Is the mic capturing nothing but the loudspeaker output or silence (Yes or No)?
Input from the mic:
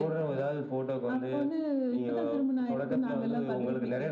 Yes